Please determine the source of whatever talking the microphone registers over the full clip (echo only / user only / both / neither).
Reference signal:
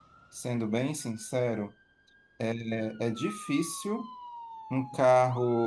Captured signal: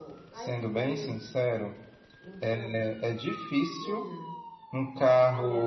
both